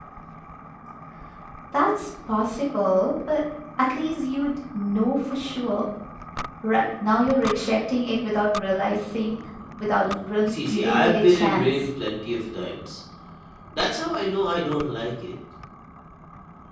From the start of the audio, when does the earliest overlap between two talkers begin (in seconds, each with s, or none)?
10.5 s